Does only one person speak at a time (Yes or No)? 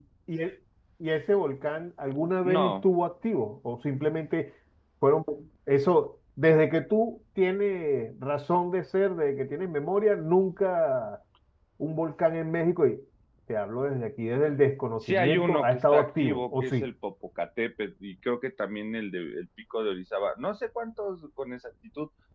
No